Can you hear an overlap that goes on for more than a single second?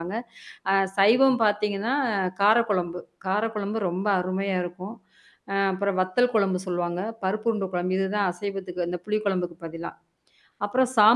No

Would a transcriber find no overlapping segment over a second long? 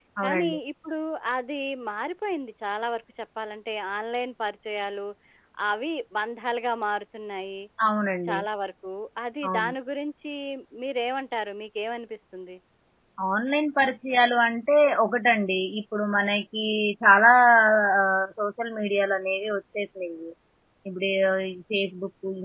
Yes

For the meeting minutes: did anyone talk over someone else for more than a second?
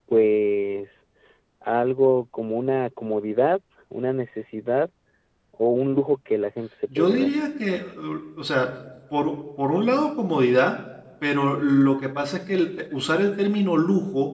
No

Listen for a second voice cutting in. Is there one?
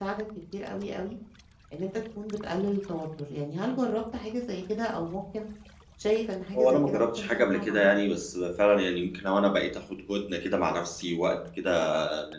Yes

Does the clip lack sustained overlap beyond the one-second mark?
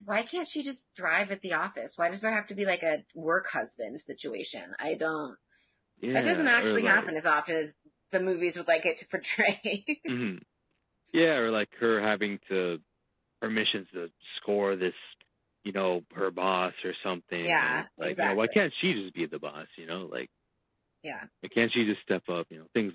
No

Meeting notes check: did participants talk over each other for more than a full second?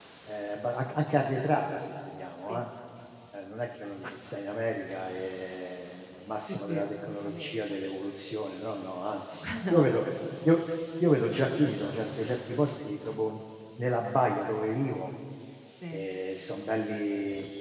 Yes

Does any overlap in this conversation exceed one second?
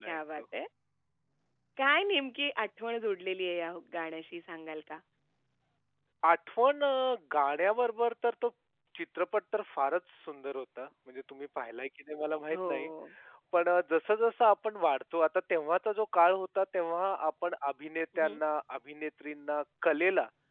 No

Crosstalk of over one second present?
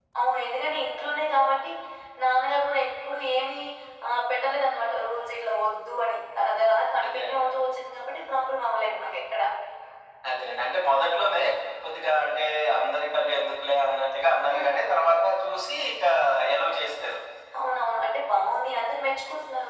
No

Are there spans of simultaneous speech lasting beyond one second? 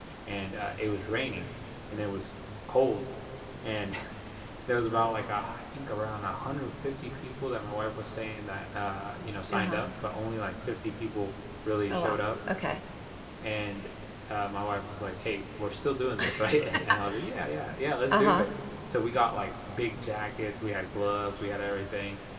No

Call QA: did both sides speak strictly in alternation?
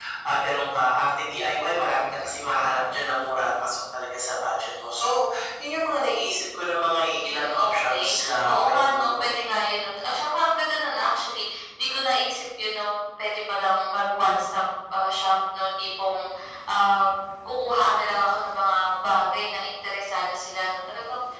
No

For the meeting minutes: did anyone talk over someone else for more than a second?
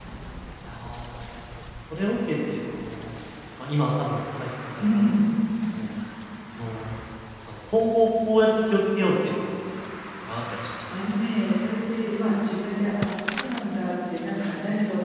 No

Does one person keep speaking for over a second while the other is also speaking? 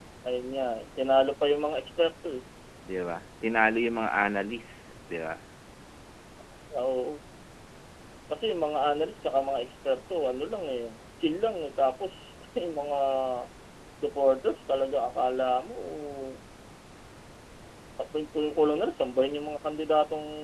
No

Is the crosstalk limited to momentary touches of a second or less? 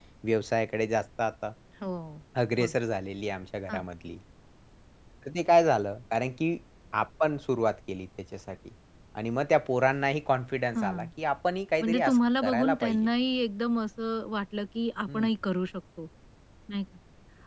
No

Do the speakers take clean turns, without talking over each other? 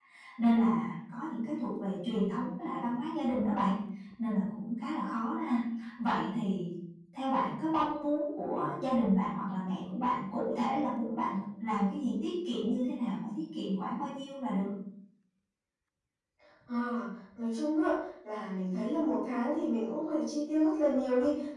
Yes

